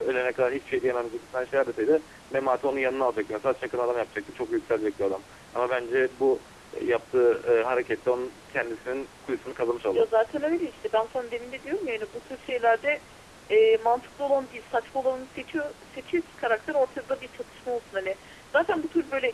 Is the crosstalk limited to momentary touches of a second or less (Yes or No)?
Yes